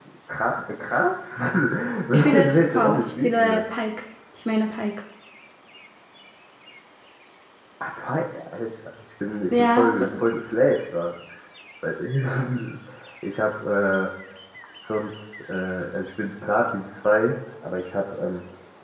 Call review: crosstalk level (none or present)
present